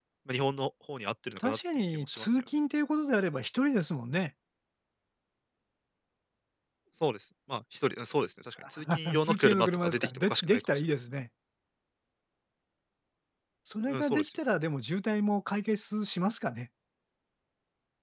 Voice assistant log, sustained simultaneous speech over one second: present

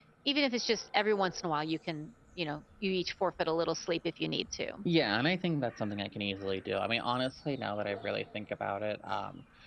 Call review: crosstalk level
none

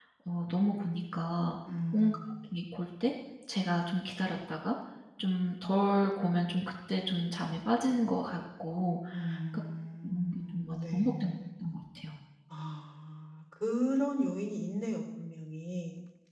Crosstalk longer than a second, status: present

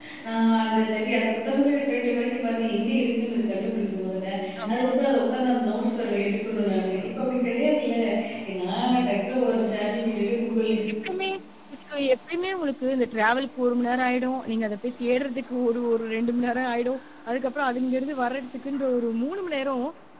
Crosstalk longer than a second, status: none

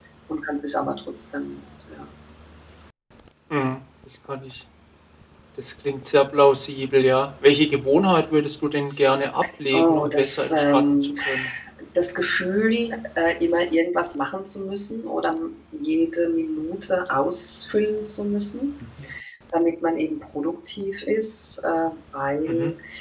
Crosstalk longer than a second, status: present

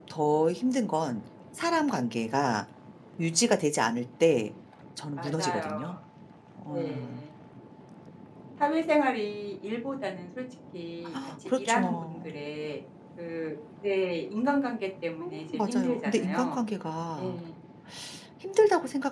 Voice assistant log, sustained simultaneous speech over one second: present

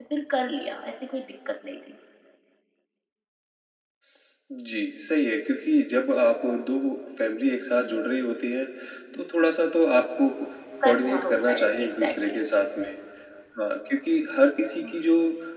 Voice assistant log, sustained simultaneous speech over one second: present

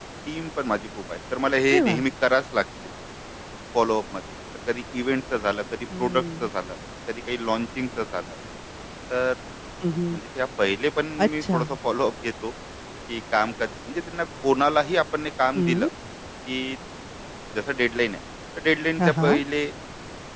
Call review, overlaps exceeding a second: none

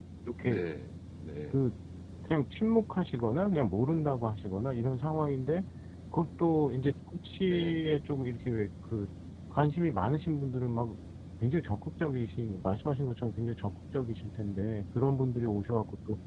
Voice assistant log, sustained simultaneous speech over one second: none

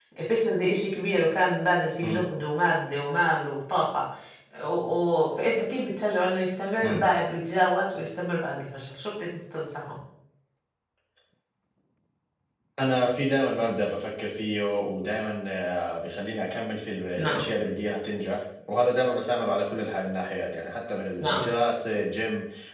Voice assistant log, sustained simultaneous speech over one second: none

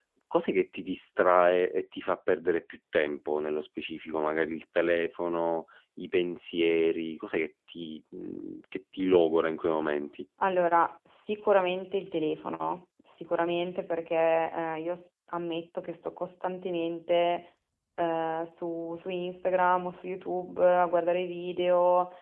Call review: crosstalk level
none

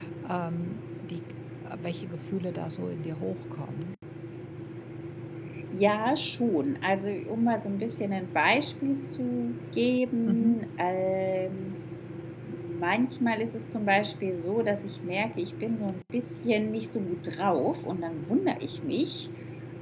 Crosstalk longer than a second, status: none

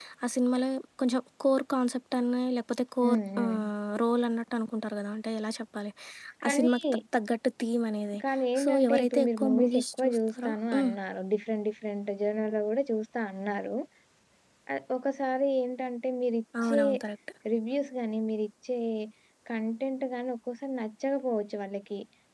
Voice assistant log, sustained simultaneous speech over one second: present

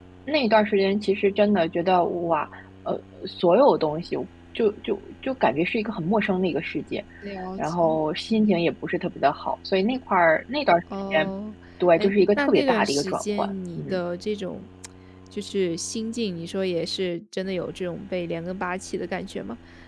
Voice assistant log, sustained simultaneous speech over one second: present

